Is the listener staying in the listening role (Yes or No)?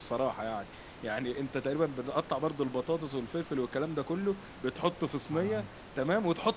Yes